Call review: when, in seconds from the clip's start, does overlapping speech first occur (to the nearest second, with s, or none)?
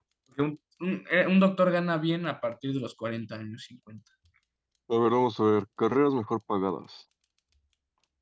none